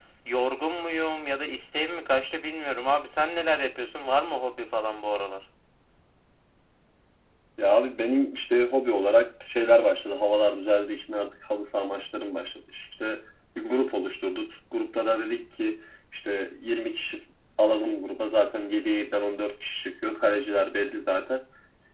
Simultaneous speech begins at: none

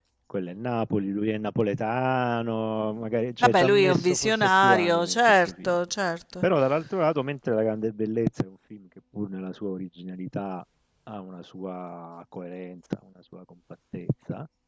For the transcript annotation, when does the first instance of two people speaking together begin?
3.4 s

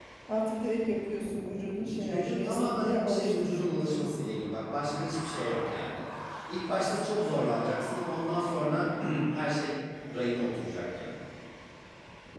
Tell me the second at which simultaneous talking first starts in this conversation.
1.8 s

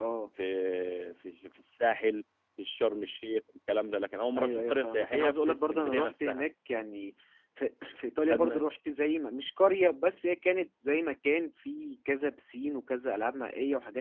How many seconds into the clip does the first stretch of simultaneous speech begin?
4.4 s

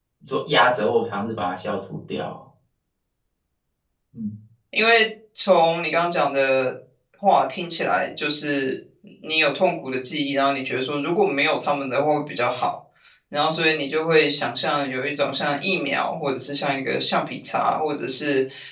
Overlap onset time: none

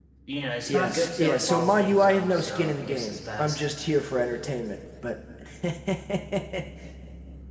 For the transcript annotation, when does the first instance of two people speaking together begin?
0.7 s

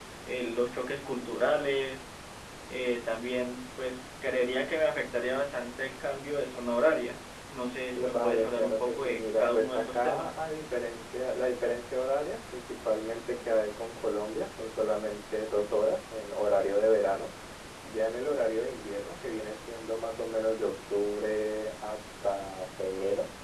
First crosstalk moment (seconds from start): 8.0 s

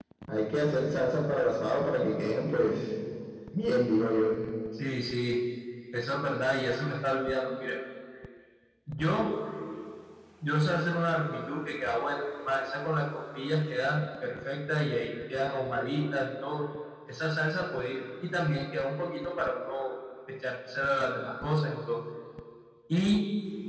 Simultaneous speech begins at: none

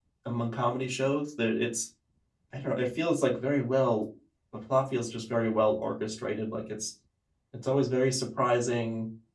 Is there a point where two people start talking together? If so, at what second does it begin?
none

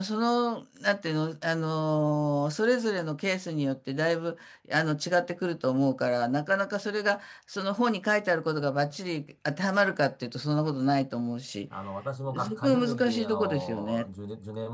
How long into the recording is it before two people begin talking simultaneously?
12.4 s

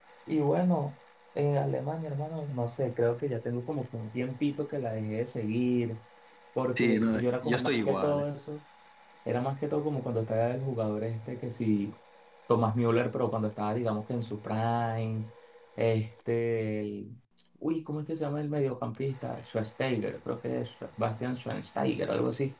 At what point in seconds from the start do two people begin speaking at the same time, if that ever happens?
6.8 s

